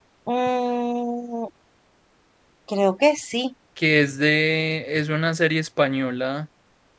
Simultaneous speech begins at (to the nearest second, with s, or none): none